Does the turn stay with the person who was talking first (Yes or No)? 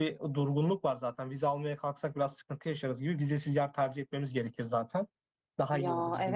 No